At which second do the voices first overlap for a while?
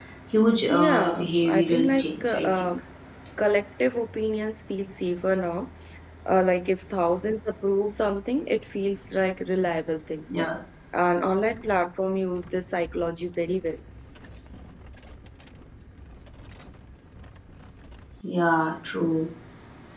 0.7 s

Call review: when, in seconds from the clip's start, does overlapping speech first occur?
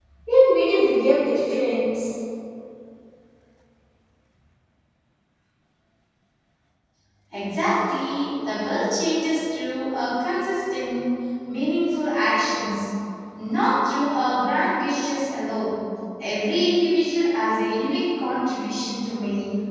none

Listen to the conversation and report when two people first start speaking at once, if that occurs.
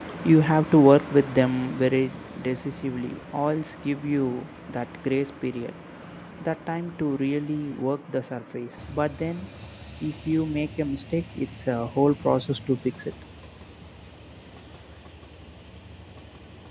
none

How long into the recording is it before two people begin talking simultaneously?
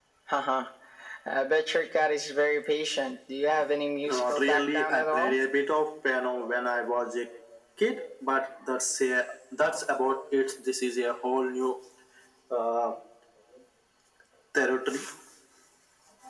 4.1 s

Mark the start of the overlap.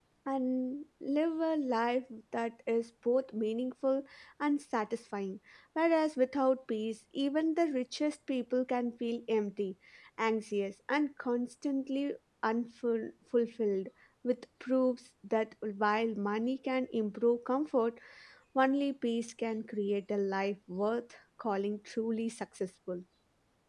none

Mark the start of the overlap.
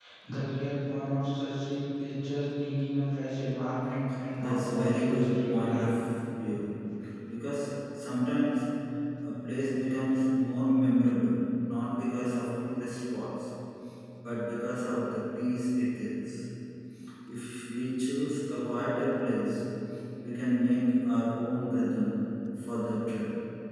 4.4 s

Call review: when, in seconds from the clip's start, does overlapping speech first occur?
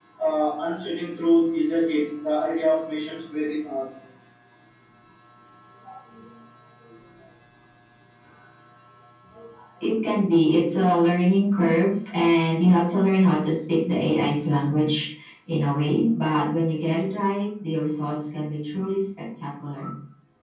none

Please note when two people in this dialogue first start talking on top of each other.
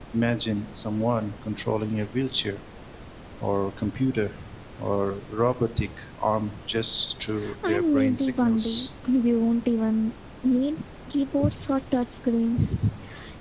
7.7 s

